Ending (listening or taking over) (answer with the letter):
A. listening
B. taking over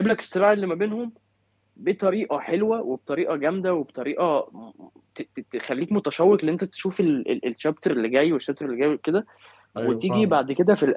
A